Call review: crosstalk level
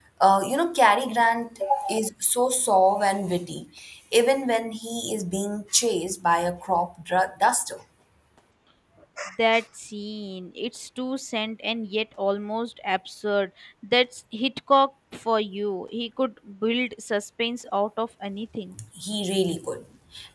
none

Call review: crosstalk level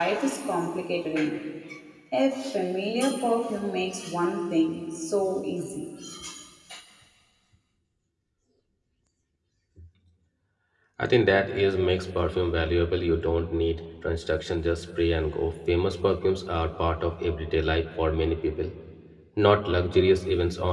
none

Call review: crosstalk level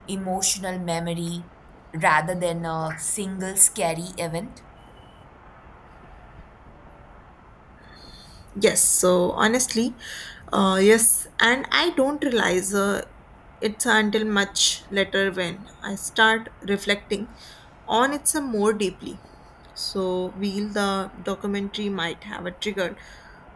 none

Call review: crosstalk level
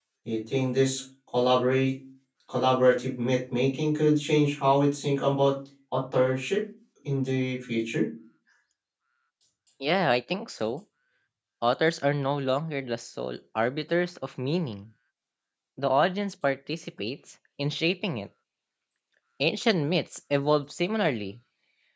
none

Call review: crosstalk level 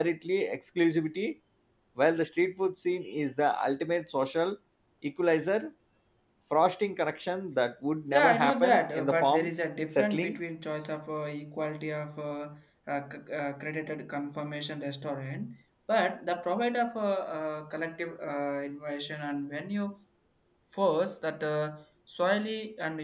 present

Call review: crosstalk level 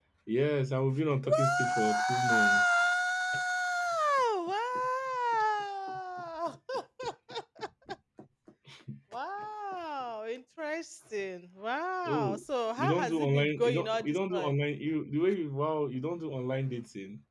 present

